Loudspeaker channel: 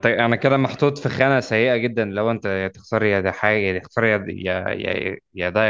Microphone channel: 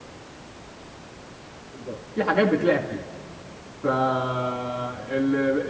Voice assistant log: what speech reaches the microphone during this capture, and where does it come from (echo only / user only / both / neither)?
user only